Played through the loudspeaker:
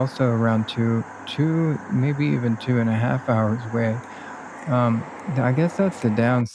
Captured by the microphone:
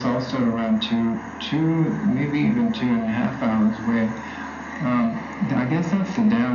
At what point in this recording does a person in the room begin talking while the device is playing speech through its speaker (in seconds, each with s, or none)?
none